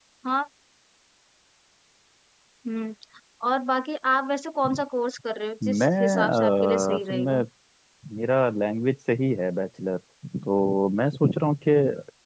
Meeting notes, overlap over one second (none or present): present